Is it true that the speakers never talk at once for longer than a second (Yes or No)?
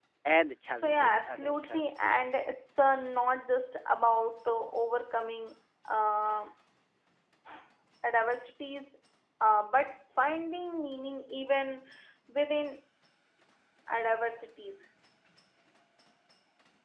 No